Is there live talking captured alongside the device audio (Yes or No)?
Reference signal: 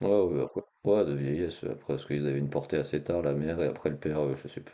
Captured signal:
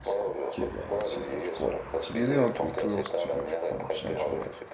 Yes